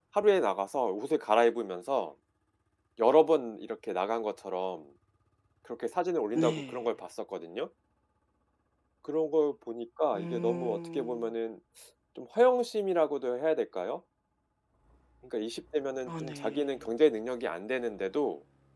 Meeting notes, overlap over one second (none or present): present